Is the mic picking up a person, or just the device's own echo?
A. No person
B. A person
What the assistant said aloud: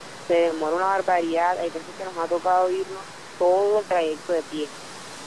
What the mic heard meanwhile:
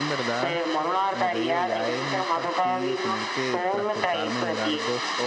B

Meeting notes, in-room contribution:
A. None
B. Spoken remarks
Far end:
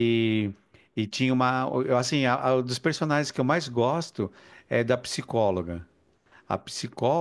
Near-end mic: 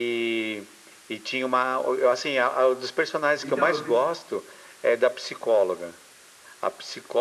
B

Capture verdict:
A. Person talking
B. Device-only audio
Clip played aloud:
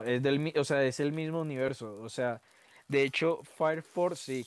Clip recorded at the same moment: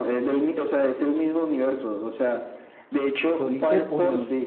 A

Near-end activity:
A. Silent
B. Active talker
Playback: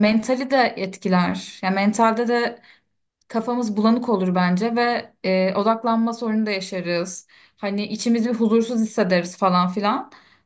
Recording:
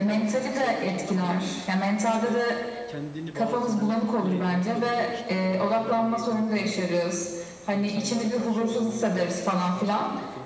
B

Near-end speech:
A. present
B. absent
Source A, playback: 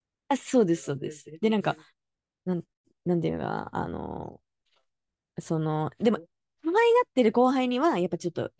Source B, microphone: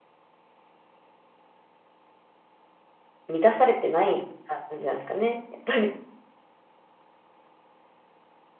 A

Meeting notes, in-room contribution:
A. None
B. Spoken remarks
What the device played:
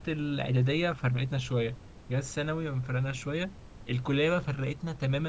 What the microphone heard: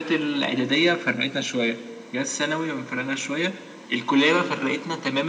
A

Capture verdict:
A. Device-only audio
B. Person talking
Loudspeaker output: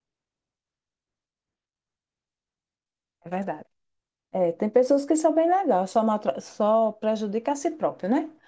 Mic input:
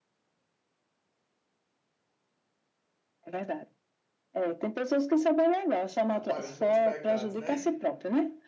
B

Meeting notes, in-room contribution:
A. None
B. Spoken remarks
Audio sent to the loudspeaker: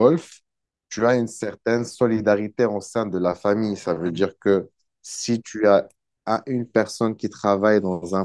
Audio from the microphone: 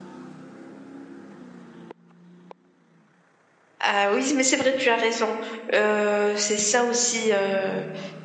B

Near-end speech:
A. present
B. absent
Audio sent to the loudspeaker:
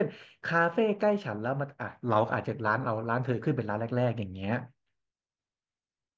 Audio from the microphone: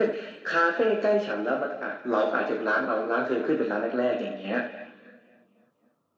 B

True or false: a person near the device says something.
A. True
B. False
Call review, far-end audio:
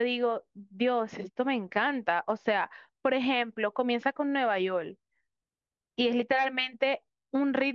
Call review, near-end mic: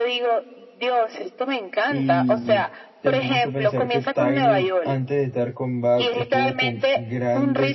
A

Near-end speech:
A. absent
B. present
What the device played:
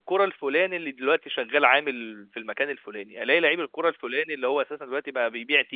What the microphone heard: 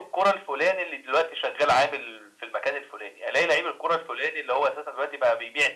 A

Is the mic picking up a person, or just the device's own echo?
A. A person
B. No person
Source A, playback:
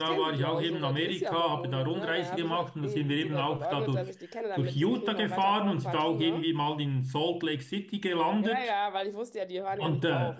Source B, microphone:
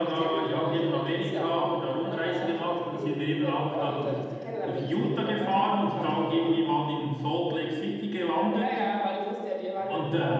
B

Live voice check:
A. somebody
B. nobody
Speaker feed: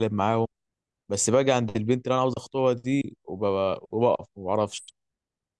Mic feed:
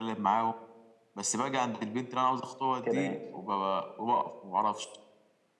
A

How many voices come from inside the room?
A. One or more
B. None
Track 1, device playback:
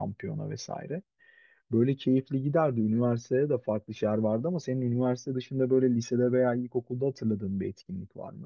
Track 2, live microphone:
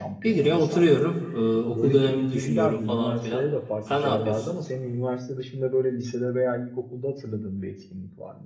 A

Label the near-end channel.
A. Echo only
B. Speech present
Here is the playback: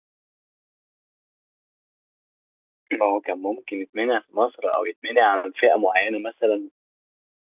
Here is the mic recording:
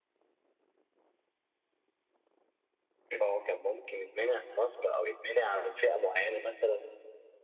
A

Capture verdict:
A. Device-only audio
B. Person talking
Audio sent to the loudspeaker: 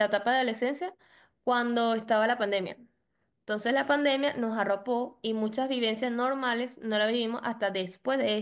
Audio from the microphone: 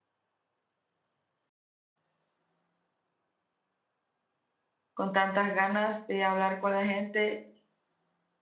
B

